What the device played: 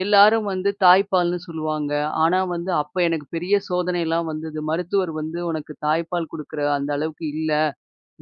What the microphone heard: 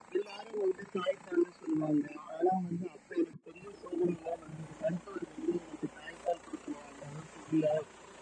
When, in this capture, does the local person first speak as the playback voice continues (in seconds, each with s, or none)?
none